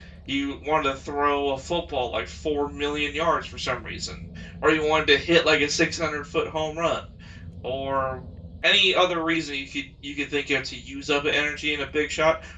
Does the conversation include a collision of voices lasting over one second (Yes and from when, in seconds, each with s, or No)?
No